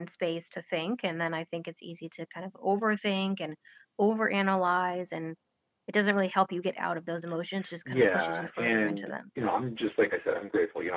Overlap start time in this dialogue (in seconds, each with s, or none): 7.8 s